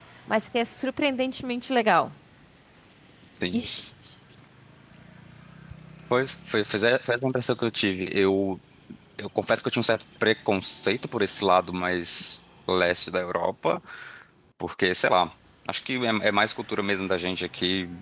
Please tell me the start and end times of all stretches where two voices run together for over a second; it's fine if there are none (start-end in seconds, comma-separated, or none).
none